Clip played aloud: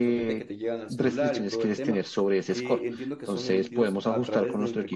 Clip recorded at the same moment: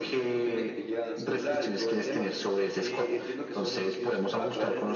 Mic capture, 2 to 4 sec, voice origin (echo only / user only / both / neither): echo only